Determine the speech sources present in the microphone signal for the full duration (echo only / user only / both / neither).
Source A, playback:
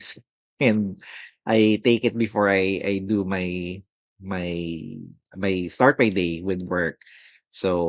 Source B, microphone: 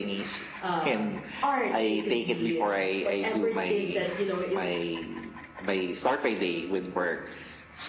both